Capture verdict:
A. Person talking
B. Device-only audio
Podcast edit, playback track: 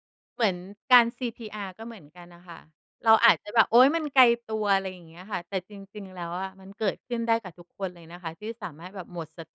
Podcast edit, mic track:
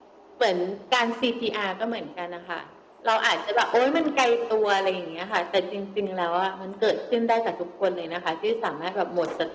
B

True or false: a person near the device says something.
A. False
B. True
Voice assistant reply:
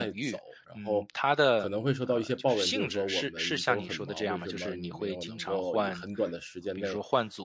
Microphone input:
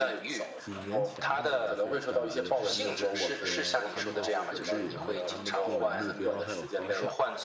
B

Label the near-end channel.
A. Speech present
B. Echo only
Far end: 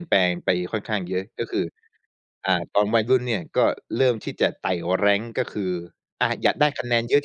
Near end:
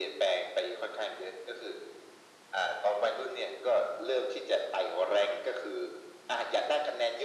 B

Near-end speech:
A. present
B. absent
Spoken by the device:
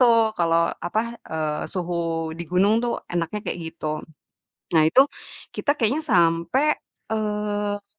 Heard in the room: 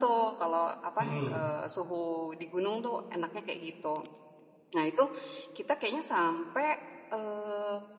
A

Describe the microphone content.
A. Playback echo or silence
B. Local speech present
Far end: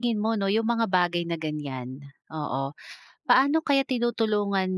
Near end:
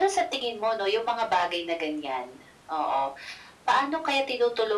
A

